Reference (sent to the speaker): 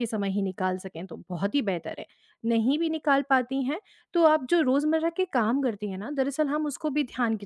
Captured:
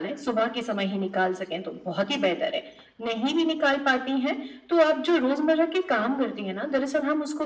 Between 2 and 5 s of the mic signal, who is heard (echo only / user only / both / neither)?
echo only